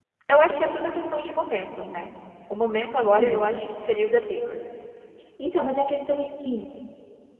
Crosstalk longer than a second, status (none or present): none